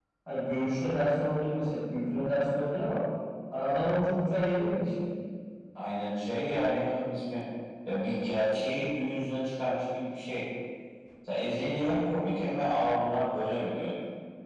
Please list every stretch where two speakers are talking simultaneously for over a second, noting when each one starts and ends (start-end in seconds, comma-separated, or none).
none